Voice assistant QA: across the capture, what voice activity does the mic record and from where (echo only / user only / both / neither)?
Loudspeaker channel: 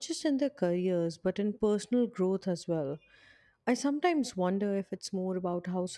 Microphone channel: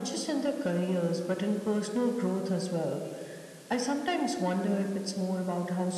echo only